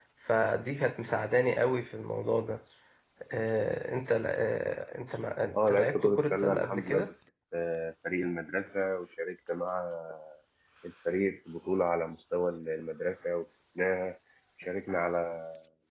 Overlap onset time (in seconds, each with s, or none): 5.5 s